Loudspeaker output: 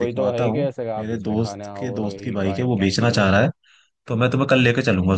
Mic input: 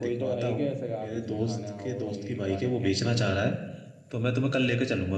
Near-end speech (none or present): none